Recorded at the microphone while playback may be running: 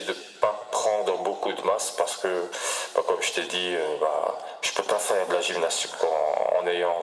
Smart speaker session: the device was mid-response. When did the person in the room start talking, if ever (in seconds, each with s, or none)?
none